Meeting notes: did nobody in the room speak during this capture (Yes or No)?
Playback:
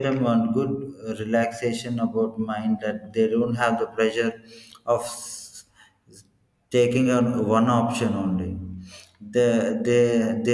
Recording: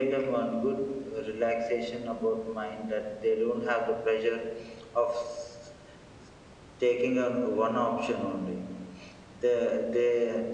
Yes